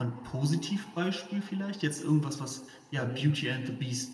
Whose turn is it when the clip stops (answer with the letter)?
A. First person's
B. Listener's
A